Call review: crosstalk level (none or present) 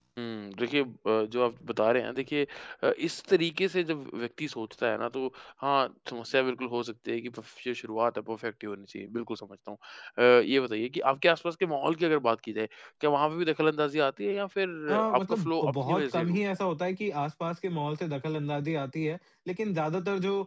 present